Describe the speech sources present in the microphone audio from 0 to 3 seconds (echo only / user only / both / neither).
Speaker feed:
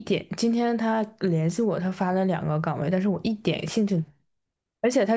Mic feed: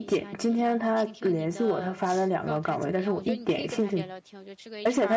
both